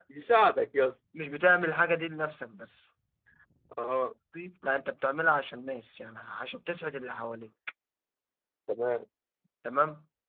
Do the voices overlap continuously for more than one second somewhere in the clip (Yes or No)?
No